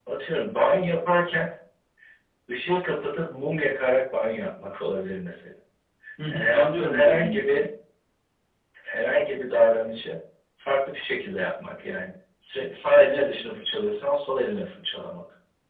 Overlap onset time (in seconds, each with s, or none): 6.3 s